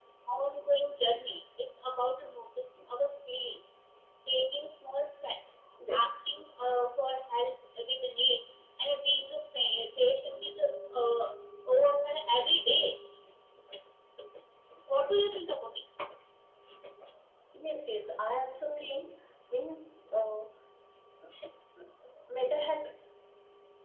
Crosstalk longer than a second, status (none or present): none